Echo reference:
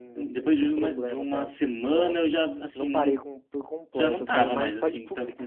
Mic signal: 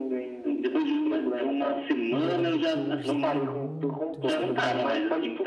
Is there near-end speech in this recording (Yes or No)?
Yes